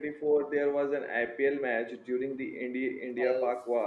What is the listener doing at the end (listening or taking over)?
taking over